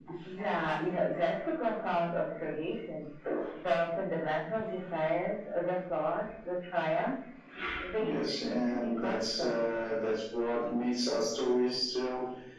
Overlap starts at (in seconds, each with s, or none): 8.0 s